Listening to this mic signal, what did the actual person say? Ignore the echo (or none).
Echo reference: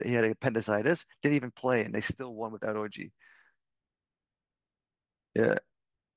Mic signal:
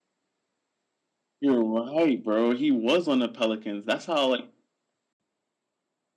You're right, bro. He was on the Pelicans. That's how like